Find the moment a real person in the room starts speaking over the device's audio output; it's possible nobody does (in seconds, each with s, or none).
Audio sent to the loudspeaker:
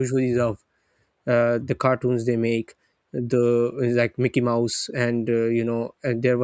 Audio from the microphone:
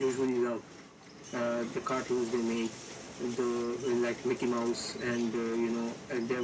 none